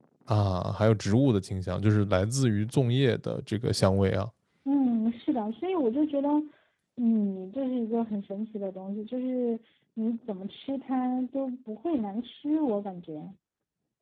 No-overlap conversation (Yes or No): Yes